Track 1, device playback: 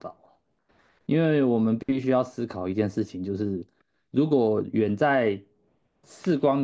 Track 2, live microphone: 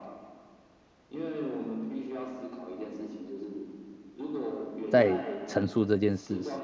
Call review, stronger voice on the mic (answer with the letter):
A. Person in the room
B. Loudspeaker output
A